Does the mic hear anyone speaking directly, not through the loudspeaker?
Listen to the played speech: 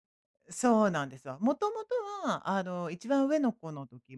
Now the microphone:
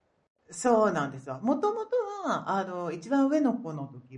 No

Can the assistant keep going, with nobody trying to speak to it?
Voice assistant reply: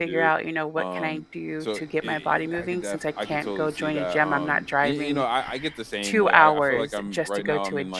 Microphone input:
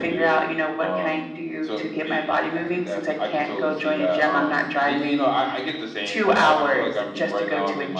Yes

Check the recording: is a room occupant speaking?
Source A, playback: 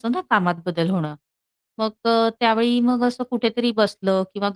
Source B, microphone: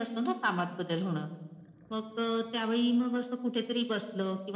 No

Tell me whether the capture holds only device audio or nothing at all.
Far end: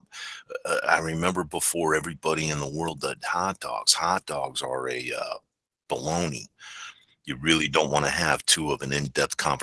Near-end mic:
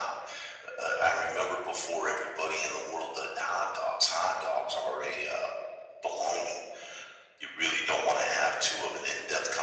Yes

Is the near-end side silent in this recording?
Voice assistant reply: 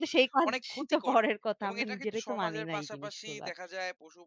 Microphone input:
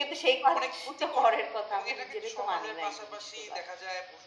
Yes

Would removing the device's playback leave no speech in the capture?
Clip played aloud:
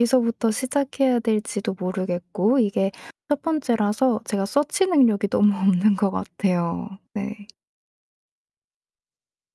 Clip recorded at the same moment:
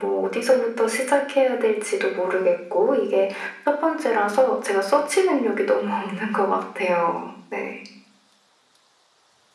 Yes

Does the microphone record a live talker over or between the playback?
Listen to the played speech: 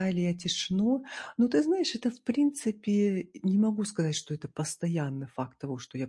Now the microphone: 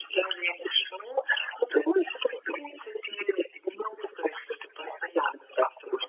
No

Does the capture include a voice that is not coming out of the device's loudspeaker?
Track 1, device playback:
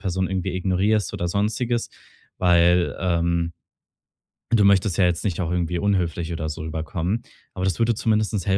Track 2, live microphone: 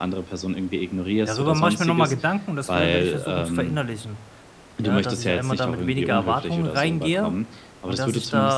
Yes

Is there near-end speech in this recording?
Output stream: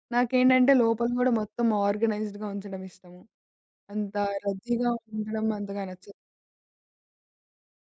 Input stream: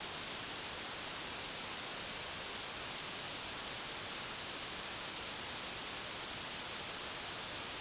No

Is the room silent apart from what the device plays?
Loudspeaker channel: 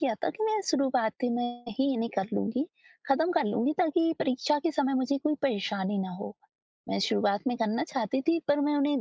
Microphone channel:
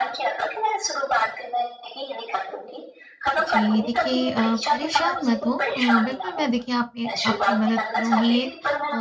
No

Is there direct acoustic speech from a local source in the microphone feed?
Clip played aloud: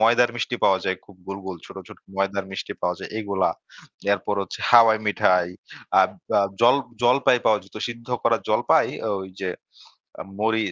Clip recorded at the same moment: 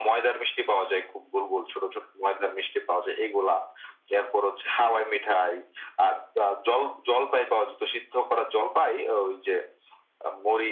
No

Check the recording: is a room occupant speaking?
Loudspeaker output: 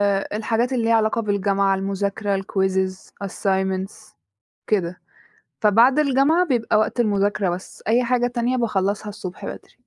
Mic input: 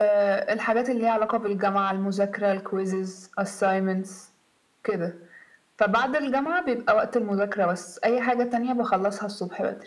No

